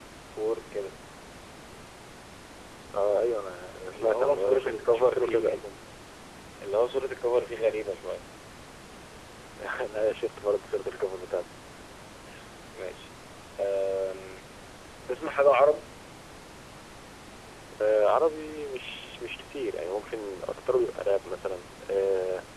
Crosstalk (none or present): present